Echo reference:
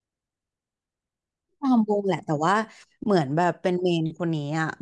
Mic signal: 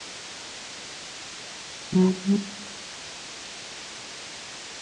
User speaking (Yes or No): Yes